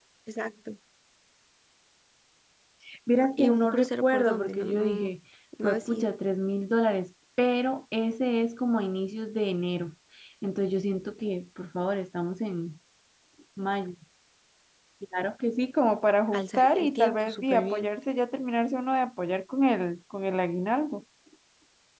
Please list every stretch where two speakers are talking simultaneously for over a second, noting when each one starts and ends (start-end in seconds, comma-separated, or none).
3.4-5.1, 16.3-17.9